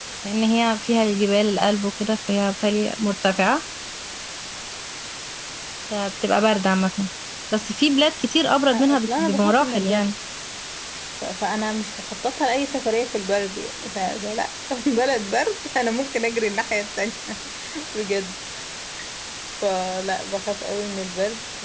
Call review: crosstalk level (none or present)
present